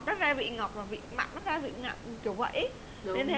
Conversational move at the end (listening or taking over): listening